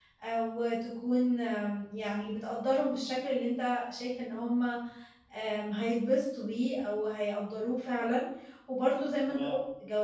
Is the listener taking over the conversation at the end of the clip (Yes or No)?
No